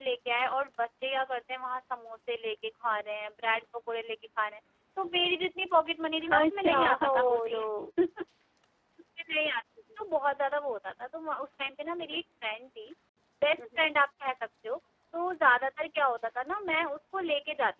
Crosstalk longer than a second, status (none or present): present